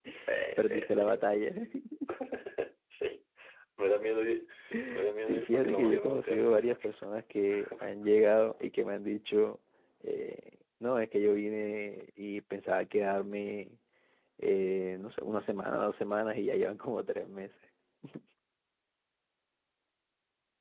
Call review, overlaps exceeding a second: present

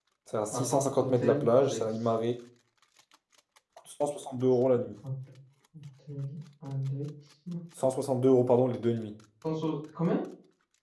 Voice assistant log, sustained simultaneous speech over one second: present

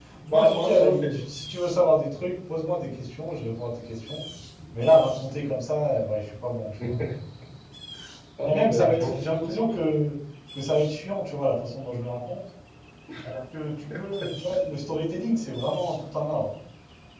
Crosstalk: present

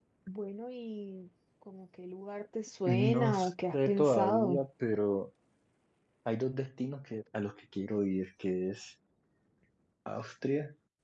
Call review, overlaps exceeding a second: present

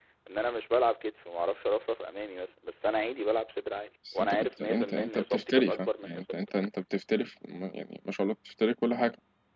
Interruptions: present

